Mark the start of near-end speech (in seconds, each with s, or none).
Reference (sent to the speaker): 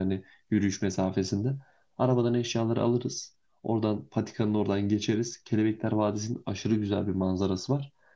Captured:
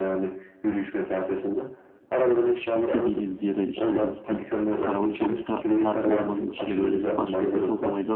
2.7 s